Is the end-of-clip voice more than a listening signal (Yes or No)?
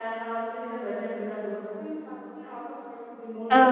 Yes